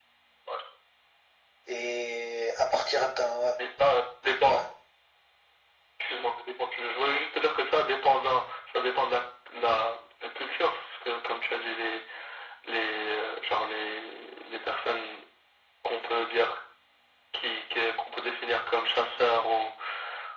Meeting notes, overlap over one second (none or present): none